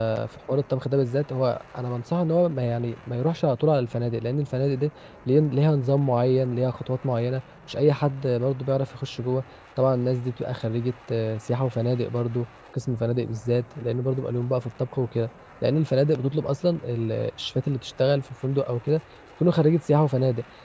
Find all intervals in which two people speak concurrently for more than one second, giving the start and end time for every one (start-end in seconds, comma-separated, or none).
none